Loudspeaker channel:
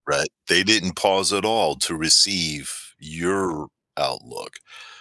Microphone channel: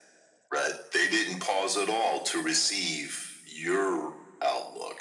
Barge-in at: none

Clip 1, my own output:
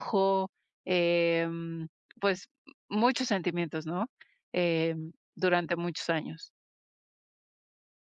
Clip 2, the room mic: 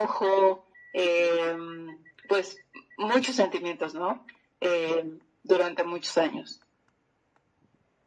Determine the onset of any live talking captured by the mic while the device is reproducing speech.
none

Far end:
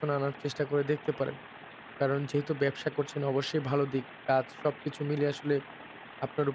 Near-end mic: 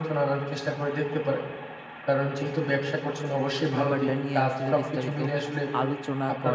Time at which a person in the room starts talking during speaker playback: 4 s

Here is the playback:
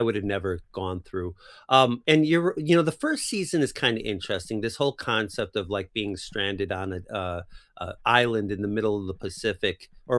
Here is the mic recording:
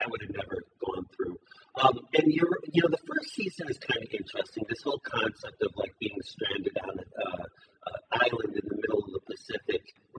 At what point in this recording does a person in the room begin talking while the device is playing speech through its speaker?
none

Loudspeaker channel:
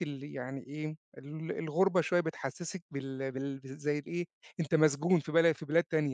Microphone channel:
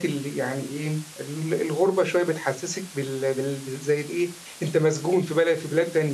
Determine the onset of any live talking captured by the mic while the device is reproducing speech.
none

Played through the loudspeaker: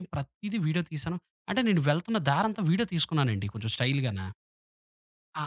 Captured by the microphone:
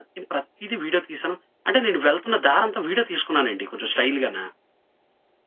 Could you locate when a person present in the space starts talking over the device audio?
none

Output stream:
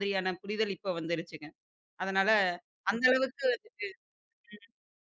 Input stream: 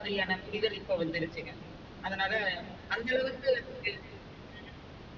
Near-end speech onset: none

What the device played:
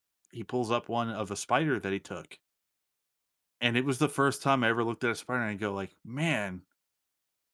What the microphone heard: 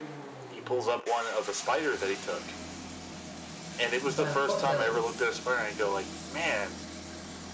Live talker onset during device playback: 4 s

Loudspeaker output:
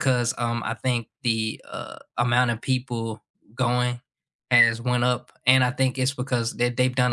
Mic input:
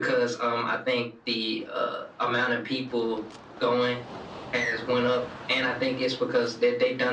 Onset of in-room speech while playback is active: none

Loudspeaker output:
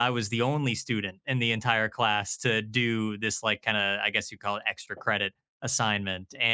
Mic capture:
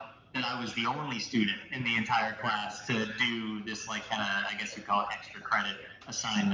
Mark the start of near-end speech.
none

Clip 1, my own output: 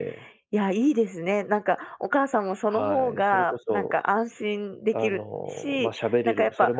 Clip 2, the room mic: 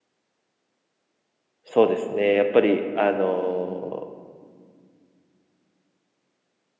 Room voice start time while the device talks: 2 s

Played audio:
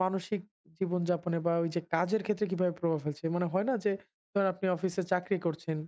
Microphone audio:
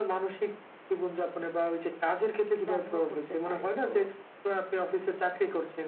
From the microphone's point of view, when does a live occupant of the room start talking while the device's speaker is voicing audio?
3 s

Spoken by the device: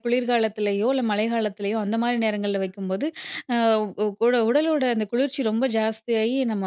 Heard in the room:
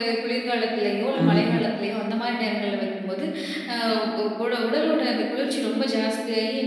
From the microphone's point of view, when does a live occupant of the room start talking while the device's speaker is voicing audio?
1 s

